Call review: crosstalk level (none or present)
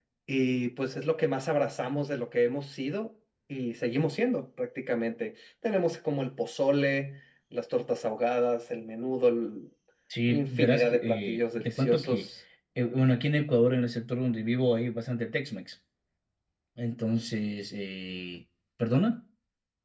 present